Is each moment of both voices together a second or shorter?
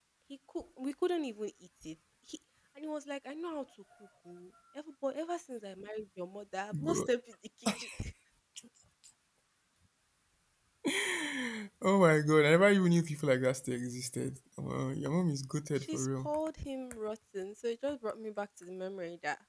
Yes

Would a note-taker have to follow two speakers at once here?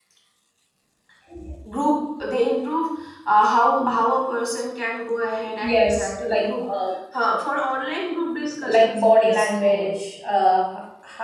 Yes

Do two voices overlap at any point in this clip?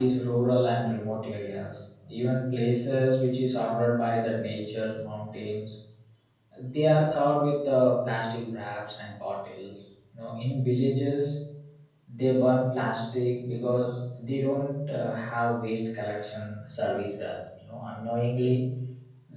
No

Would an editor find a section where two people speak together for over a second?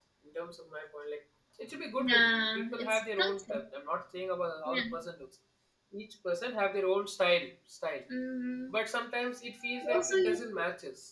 Yes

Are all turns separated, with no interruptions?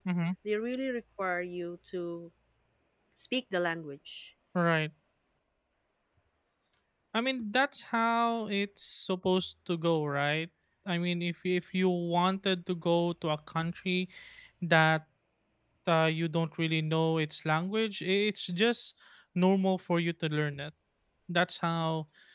Yes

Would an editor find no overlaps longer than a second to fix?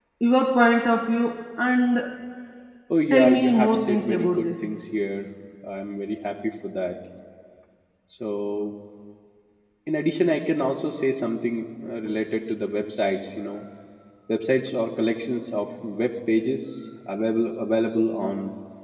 No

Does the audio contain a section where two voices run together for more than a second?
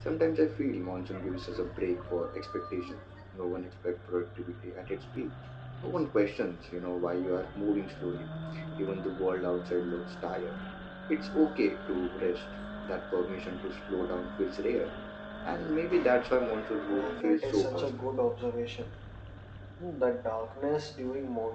Yes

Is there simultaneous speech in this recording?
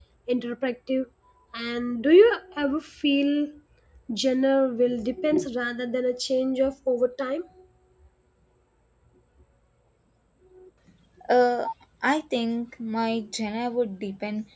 No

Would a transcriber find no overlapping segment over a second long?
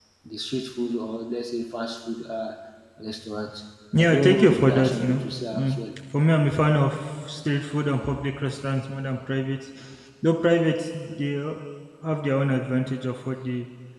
No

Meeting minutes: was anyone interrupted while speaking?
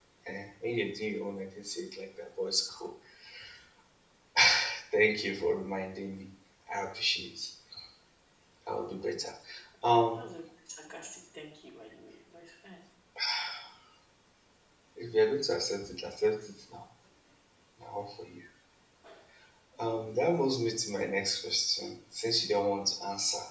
No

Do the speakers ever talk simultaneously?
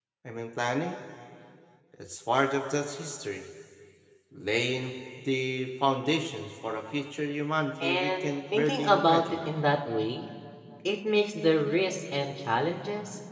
Yes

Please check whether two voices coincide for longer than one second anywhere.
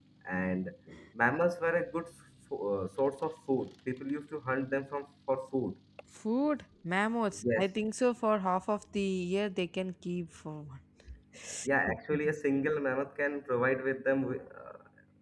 No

